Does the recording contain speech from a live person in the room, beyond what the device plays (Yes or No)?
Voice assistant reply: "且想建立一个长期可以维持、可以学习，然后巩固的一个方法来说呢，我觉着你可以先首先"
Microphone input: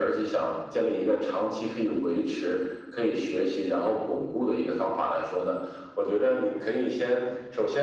No